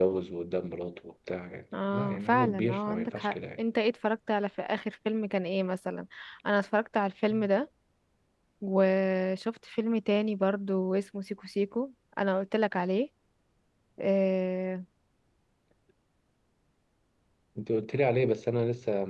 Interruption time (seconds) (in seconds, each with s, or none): 1.7 s